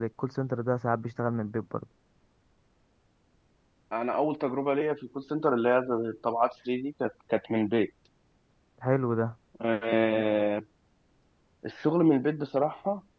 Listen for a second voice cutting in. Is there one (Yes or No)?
No